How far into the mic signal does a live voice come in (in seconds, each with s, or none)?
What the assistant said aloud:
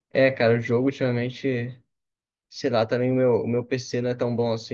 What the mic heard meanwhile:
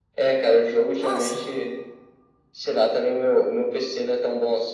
1.0 s